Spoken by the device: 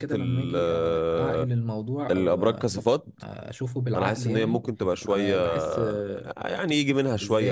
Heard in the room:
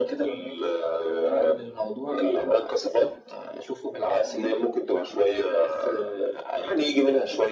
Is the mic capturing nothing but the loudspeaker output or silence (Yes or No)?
Yes